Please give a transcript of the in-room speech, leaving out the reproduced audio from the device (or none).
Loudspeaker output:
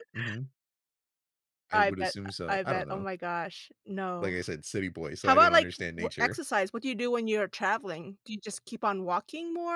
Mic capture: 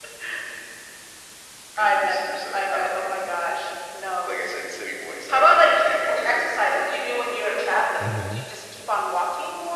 Mhm.